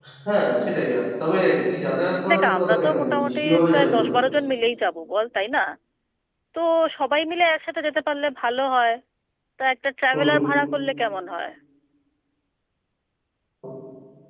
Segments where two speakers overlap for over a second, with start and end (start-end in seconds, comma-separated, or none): 2.3-4.1